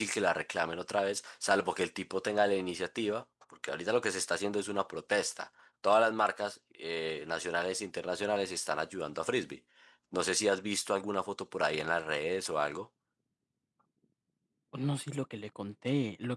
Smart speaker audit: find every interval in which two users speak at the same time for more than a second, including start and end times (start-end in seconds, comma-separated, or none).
none